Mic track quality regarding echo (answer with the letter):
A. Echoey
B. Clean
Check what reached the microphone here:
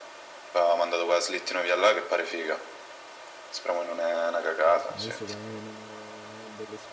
A